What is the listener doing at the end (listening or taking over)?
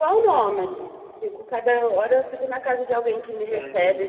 taking over